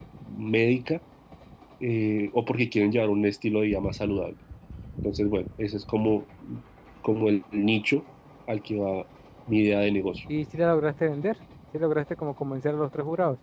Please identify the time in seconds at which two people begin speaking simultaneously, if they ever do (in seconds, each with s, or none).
none